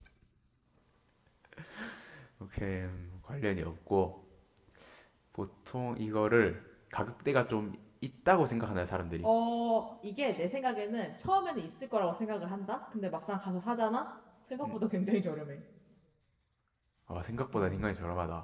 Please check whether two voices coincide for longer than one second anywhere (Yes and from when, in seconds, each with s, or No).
No